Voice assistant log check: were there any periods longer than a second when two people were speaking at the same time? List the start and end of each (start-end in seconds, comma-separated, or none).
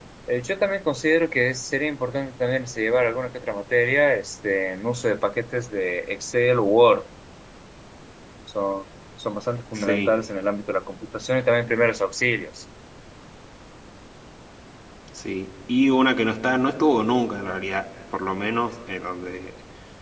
none